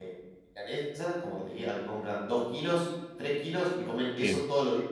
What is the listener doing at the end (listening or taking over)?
listening